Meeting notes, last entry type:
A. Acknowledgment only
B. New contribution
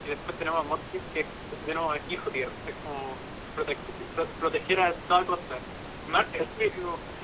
A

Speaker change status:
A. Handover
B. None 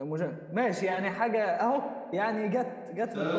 A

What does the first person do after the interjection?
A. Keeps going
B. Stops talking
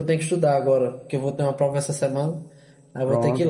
B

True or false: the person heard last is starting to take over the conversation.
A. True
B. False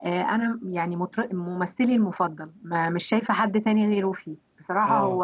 B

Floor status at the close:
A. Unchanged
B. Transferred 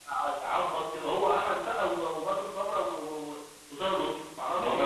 B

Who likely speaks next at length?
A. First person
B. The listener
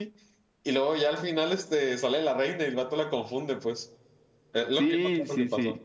B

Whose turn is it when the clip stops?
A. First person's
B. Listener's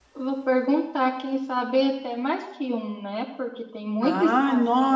B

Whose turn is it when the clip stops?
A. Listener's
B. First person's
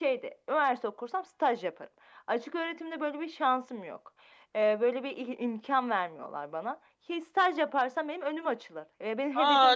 A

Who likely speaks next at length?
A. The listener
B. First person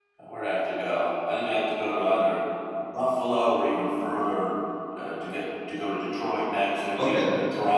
B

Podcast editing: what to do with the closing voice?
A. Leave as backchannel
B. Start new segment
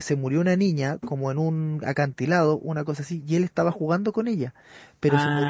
A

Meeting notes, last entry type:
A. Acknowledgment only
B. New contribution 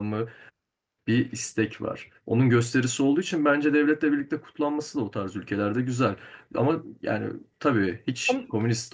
A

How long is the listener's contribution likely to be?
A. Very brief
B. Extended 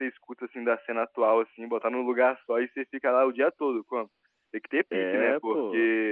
A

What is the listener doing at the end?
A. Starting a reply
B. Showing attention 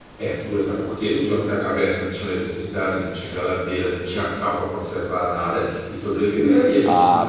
A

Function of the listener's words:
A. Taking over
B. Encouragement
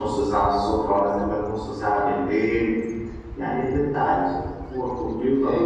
A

